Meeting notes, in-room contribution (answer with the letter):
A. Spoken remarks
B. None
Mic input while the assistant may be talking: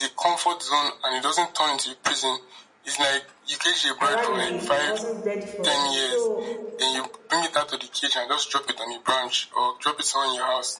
A